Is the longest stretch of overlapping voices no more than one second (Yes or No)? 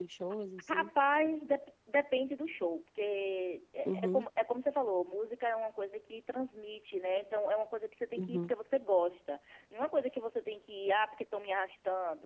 Yes